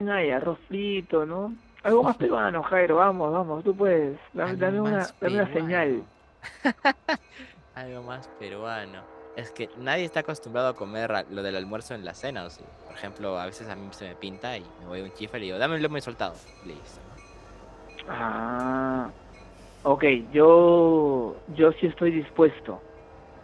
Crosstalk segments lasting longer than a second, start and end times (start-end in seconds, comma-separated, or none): 4.5-6.0